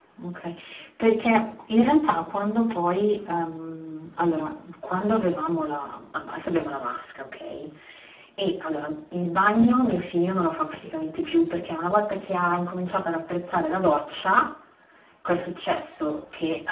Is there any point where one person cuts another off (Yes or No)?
No